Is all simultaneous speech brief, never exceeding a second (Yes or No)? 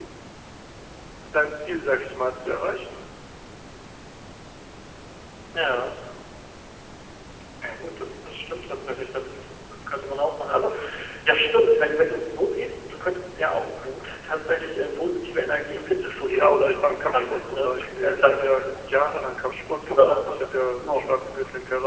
No